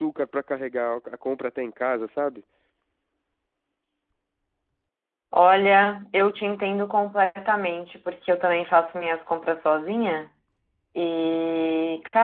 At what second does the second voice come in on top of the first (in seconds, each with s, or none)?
none